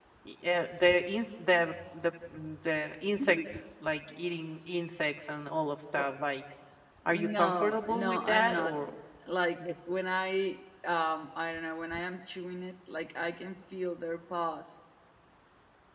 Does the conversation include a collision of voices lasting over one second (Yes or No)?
Yes